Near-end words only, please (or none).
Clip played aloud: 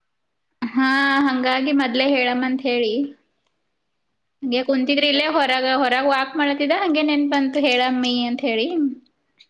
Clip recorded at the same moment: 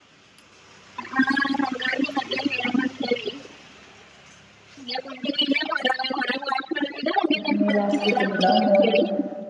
ಅದ ಮೇಲೆ ಆಾಸ್ತಿ ತಿಂದದಾ ನೋಡ್ಬೇಕ್ರೆ